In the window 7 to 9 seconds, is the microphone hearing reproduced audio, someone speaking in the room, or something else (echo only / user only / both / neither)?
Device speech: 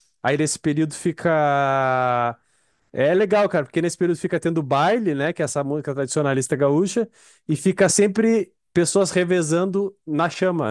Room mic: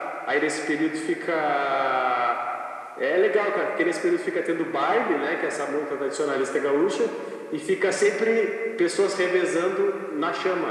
echo only